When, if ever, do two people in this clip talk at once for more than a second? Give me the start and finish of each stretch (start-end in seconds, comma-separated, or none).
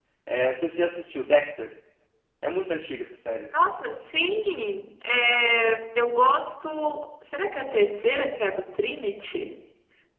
none